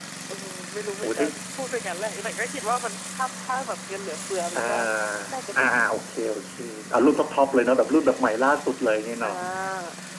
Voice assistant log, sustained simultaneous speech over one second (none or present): none